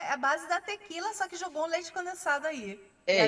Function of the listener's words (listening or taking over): taking over